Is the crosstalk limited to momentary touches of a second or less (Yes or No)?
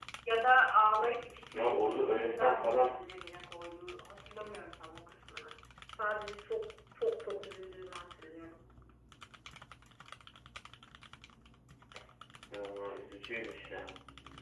No